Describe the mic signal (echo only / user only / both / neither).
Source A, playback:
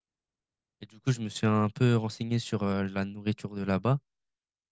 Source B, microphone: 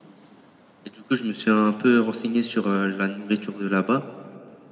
echo only